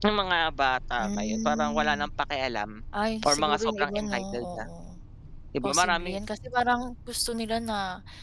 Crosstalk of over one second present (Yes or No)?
Yes